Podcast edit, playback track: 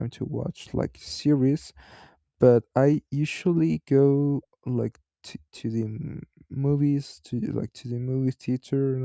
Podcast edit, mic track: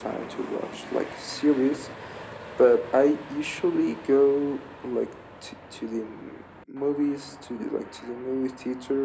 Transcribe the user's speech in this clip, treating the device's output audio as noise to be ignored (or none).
none